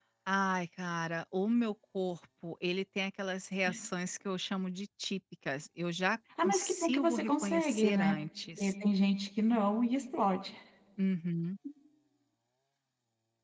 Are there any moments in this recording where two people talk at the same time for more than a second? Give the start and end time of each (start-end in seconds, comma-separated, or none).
6.4-8.1